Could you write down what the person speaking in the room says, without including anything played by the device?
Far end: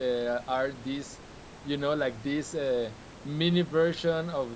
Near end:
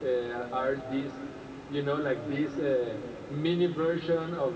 none

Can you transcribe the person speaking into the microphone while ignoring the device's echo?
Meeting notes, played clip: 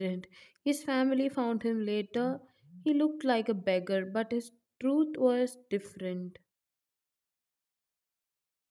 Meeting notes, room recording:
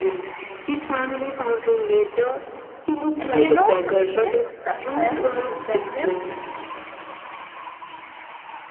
And you know, even success is deceptive.

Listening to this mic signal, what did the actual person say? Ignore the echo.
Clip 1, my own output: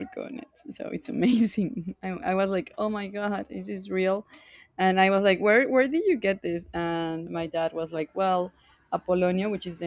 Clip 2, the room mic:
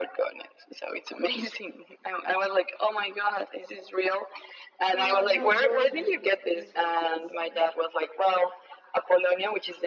Uh no, rosemary is what it says here.

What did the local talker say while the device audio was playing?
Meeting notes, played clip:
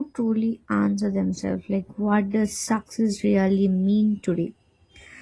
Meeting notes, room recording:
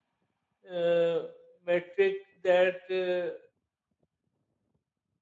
uh, metric that uh,

